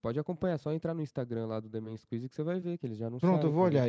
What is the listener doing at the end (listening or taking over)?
taking over